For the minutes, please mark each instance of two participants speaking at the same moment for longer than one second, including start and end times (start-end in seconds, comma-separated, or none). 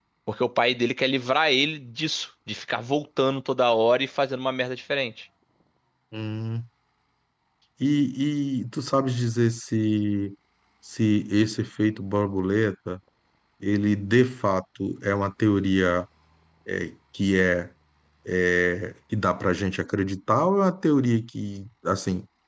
none